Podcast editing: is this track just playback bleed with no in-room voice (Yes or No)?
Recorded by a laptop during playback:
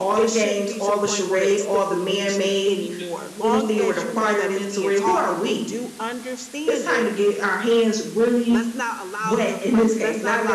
No